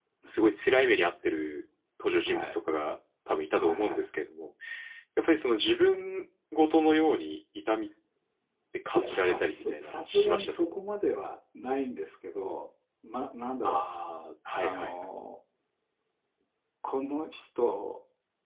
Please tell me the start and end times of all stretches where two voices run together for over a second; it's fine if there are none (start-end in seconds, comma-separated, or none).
9.0-10.8